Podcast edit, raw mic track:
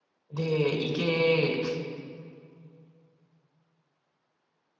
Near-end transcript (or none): 네 이게